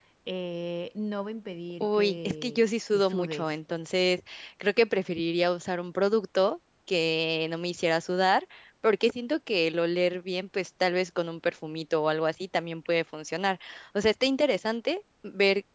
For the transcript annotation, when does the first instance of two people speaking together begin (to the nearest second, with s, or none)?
2 s